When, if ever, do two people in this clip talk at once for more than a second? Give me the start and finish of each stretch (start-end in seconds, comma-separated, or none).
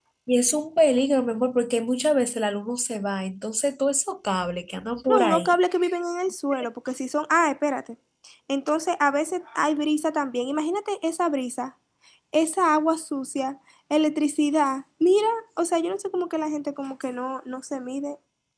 none